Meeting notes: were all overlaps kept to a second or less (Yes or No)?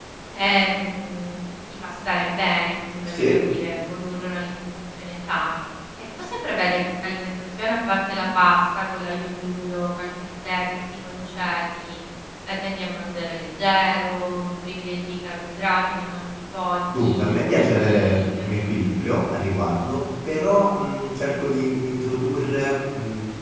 No